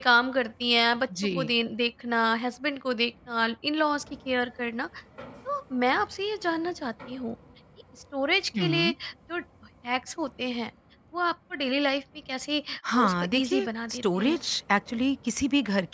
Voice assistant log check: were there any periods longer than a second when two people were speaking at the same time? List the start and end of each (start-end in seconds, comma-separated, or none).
13.0-14.4